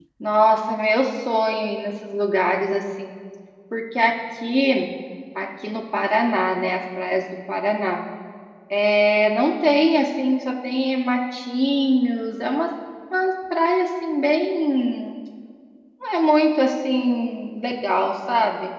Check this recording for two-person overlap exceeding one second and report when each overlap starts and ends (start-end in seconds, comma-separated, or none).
none